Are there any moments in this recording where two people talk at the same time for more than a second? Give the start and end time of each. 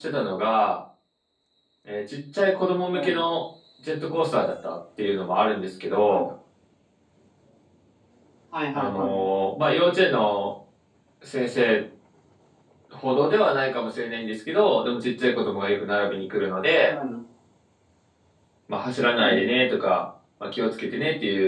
none

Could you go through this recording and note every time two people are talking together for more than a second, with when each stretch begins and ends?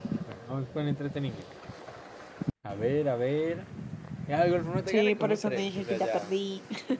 4.9-6.3

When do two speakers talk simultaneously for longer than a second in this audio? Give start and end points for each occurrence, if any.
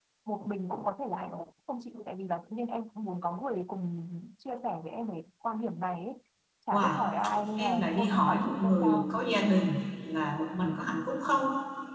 7.6-9.1

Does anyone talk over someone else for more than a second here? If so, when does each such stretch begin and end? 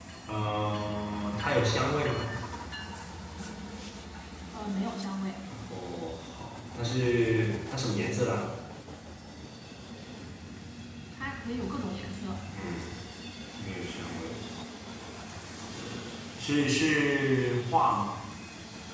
none

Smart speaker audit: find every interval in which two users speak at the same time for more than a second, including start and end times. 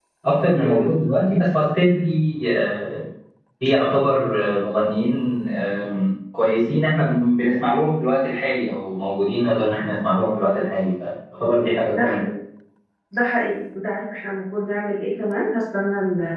none

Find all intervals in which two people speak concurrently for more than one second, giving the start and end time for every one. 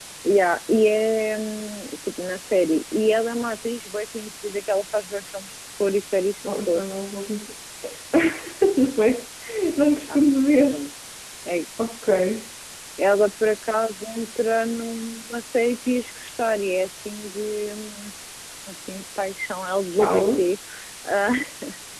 none

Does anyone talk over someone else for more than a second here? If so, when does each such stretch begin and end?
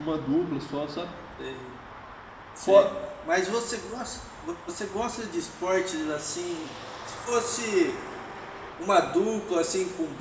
none

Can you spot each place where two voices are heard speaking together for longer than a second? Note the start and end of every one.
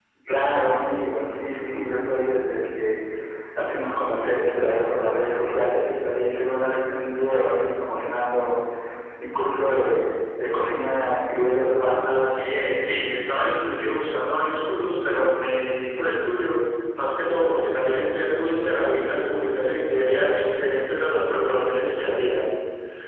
none

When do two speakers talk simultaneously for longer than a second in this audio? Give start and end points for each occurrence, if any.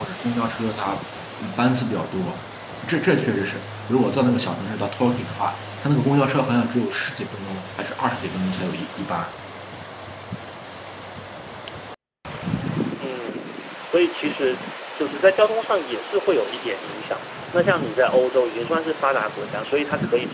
none

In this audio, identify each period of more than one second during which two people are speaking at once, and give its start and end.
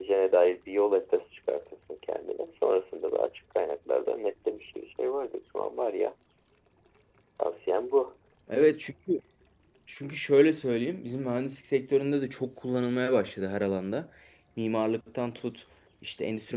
none

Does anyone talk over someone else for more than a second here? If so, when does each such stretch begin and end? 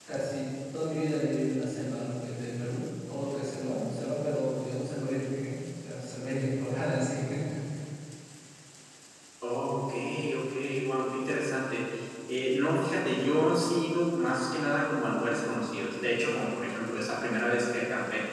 none

